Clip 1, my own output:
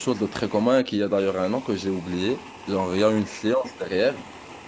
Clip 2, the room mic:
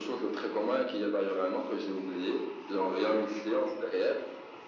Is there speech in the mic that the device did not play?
No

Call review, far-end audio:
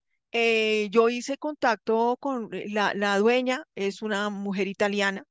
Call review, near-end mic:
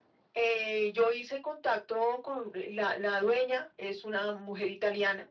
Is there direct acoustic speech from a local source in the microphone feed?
No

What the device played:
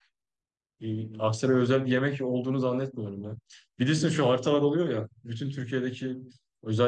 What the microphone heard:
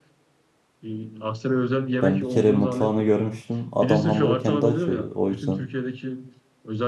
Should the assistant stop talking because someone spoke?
Yes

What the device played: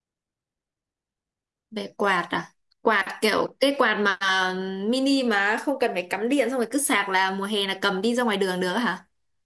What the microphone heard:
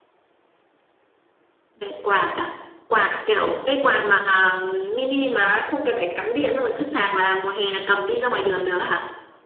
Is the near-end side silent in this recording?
Yes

